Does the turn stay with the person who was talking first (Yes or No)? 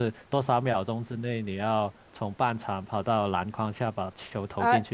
No